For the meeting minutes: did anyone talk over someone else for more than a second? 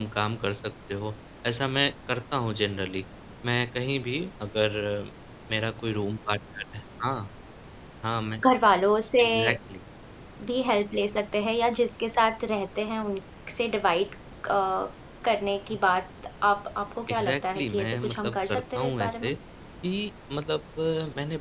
Yes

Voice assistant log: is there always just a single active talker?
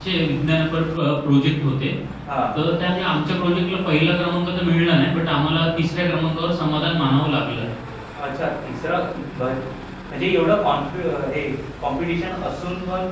Yes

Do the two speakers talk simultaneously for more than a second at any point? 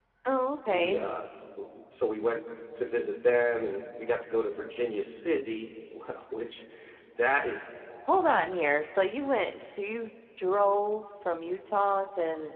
No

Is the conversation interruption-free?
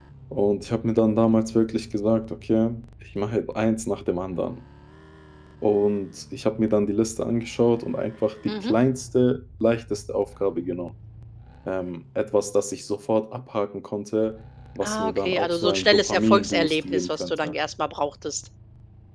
No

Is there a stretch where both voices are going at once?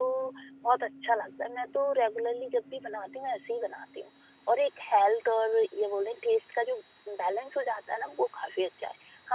No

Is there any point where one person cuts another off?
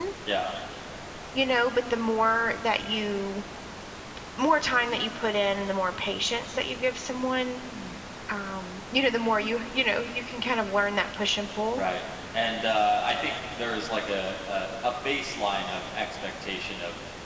No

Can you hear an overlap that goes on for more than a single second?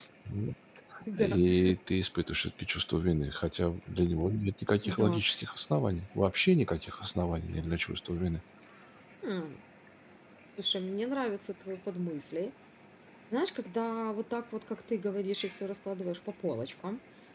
No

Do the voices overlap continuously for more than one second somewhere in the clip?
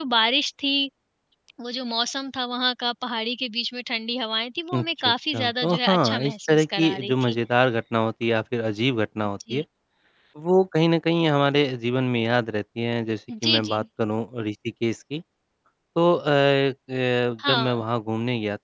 Yes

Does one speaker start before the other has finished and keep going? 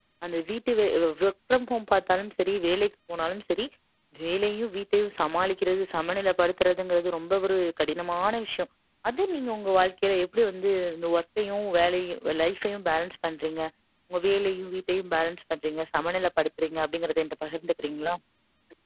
No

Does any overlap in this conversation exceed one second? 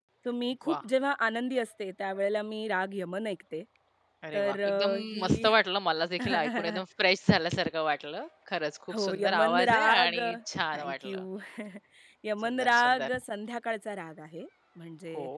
Yes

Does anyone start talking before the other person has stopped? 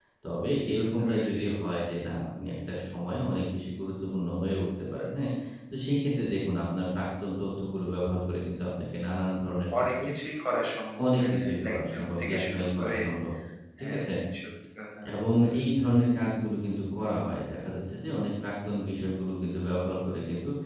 Yes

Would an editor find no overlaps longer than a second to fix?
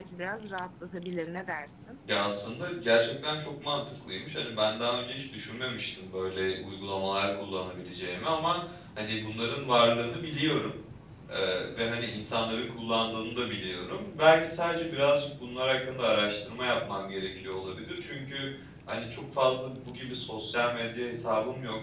Yes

